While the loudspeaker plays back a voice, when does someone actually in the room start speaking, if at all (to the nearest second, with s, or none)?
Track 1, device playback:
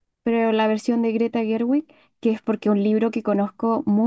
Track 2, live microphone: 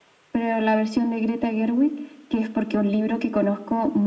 none